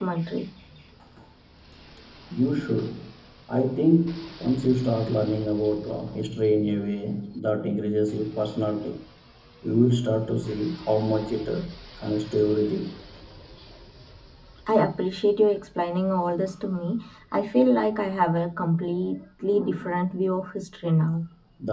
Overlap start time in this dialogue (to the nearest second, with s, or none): none